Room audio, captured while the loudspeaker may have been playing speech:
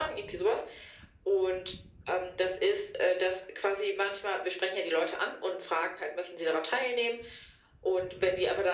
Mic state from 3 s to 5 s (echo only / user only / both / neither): echo only